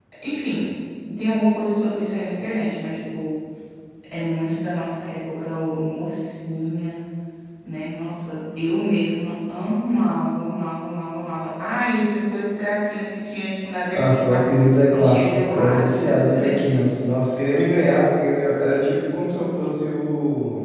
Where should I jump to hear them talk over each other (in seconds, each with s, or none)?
13.9 s